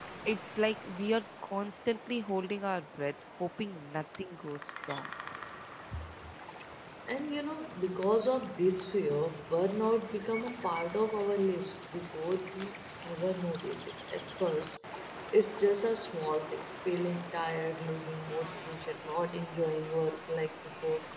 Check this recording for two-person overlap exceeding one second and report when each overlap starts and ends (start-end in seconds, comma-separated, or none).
none